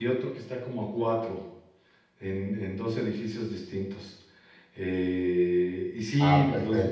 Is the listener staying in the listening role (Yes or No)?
Yes